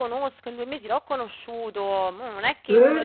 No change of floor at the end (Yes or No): Yes